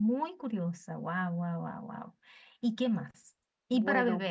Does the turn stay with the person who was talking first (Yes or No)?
Yes